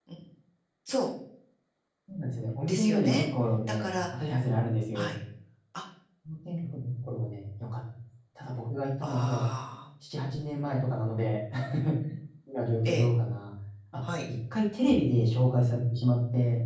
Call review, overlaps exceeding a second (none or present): none